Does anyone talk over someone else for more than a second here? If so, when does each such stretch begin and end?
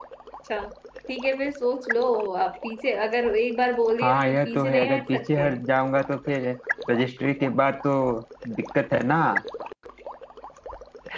4.0-5.5

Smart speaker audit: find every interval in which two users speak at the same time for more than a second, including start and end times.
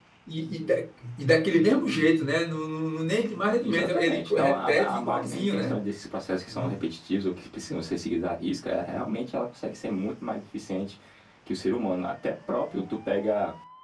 3.6-5.8

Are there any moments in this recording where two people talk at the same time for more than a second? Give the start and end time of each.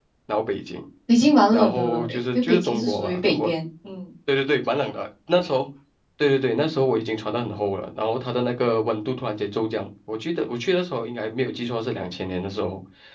1.5-3.5

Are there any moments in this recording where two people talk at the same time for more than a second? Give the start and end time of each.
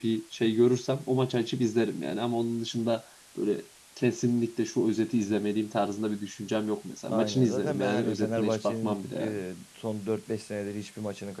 7.1-9.4

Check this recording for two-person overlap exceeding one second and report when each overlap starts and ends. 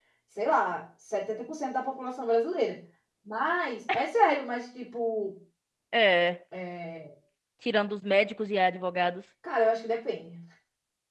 none

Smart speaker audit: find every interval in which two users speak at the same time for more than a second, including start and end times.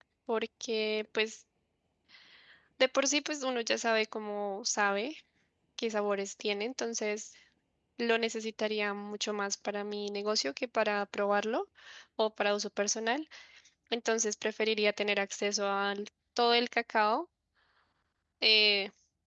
none

